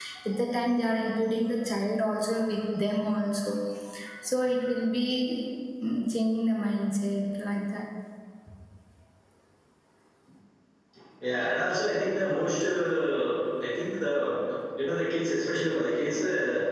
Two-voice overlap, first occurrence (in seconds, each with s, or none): none